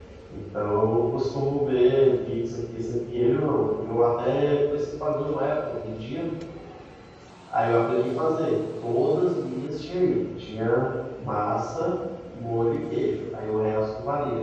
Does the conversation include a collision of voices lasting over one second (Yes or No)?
No